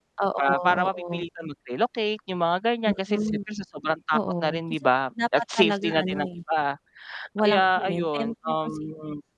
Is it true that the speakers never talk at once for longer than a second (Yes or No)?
No